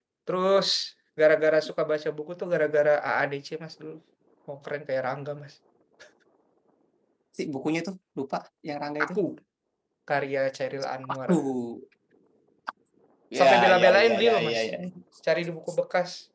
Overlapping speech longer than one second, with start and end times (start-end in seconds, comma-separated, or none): 13.4-14.6